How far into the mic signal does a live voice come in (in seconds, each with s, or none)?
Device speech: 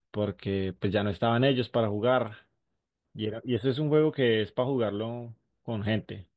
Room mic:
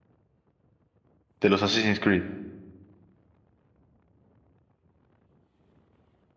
1.4 s